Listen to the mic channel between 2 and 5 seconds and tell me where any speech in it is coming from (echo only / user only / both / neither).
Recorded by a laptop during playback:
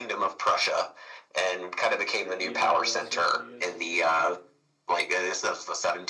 both